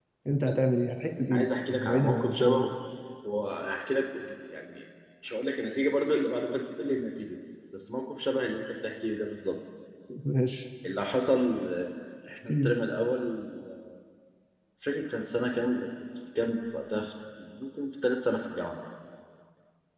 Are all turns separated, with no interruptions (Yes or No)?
No